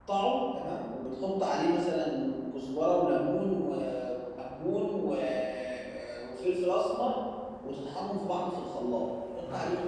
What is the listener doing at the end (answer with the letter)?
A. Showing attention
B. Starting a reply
A